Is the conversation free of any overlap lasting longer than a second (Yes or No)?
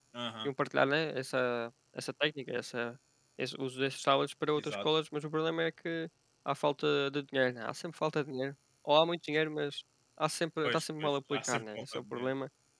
No